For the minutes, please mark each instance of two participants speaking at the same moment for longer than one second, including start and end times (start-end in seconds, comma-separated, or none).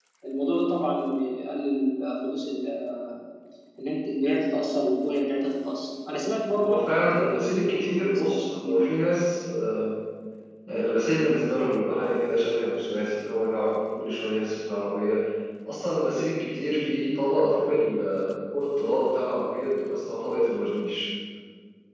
6.6-8.8